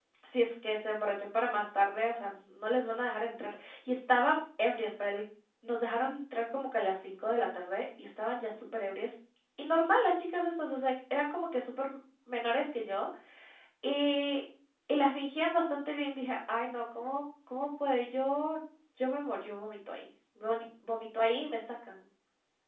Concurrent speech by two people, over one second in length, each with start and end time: none

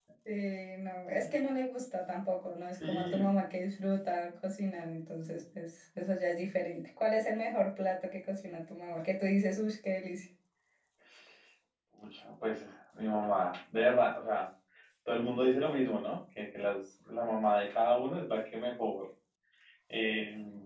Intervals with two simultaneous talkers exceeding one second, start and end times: none

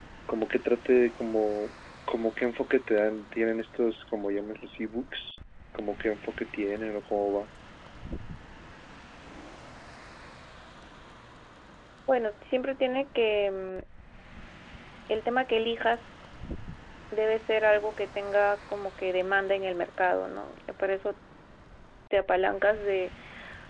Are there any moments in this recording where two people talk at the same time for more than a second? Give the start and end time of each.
none

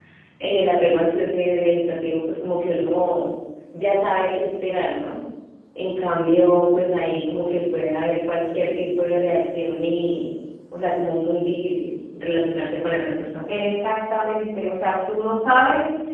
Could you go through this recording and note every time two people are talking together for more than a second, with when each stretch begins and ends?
none

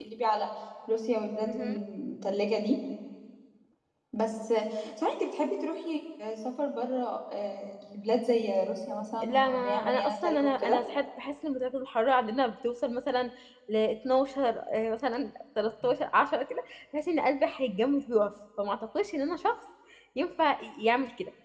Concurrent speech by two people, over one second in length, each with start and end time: 9.2-10.8

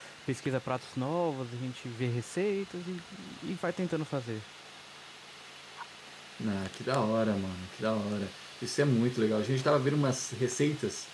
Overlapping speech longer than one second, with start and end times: none

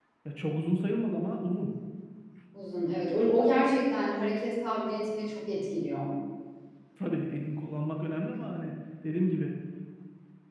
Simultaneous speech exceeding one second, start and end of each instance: none

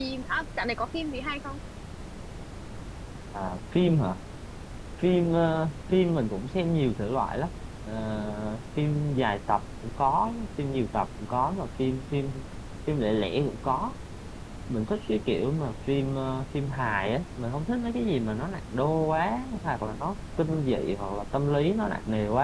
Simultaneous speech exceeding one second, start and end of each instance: none

